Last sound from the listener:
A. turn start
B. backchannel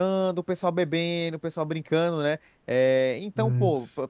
B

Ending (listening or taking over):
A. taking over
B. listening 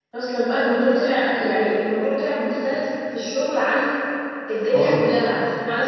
B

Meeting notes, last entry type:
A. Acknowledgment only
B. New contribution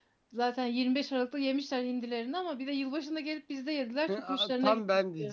B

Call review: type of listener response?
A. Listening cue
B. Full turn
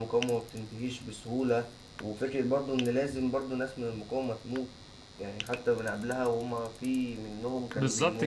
B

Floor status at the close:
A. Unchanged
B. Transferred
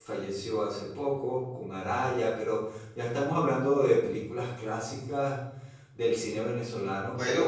B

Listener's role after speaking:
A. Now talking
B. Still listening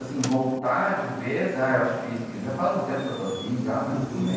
A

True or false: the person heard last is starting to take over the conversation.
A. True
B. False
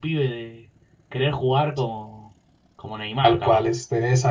A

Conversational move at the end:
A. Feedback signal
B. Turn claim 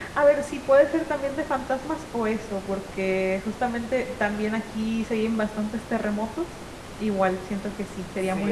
B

